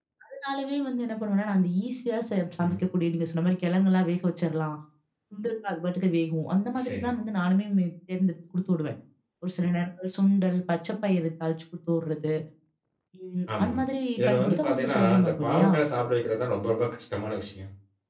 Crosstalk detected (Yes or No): Yes